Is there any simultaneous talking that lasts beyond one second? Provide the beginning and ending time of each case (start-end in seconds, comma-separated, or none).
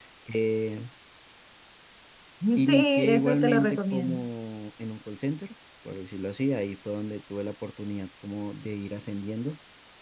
2.7-4.2